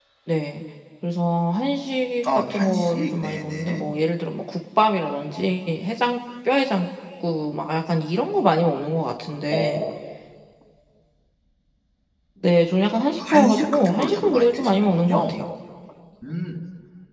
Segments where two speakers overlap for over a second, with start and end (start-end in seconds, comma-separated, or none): 2.3-3.9, 13.2-15.4